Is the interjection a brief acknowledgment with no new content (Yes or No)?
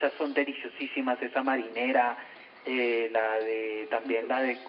Yes